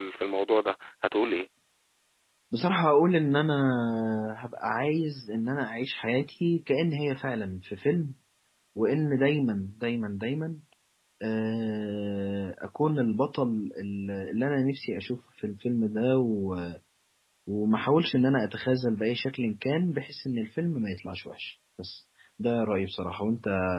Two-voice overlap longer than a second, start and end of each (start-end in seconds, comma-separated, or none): none